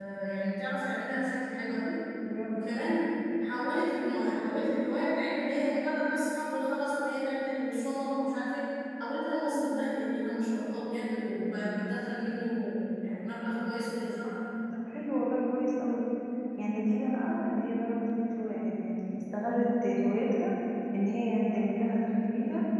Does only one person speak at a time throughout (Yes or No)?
Yes